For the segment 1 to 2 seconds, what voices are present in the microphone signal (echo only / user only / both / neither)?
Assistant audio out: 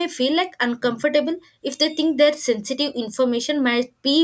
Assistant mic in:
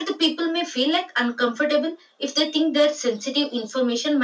echo only